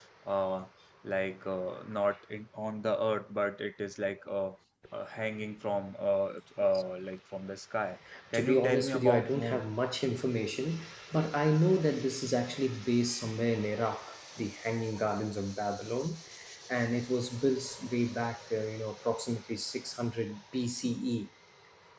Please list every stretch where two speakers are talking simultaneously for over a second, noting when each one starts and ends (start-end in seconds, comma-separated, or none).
8.3-9.6